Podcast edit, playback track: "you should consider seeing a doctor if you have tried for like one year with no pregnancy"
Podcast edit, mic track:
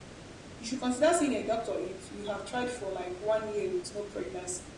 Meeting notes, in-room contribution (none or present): none